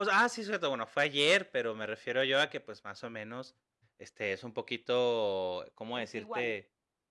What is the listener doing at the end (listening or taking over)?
listening